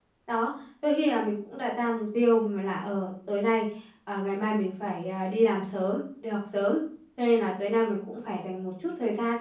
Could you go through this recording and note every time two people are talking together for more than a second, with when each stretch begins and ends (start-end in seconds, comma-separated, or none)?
none